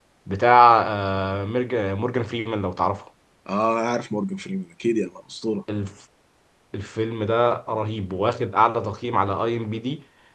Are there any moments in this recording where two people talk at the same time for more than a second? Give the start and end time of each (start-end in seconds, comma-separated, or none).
none